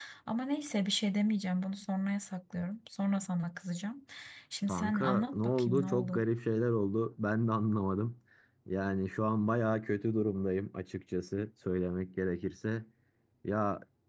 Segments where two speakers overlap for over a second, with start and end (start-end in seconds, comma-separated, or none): 4.7-6.2